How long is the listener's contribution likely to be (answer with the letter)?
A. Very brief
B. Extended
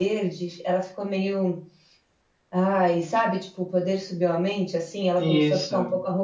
A